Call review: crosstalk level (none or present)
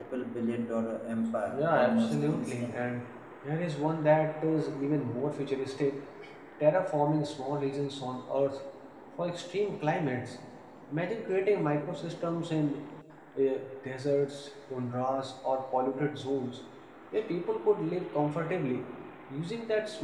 present